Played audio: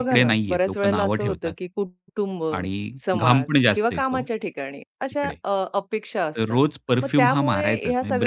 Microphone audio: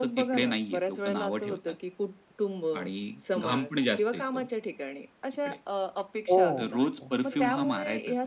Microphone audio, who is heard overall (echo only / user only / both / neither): both